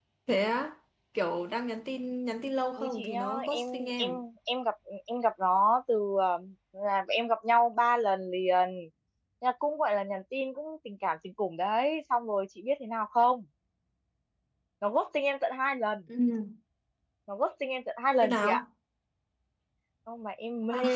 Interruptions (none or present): present